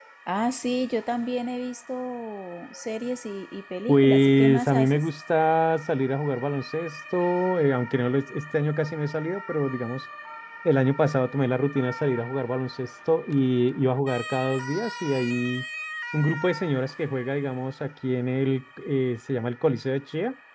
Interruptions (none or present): present